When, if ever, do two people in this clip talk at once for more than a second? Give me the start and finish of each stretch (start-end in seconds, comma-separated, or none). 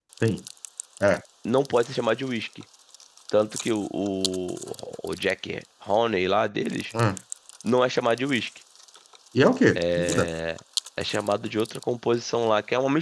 none